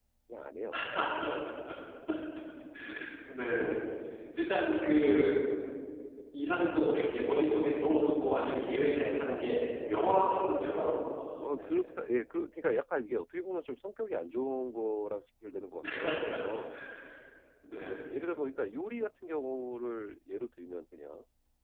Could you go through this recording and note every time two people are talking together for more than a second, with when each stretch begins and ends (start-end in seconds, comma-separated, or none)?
none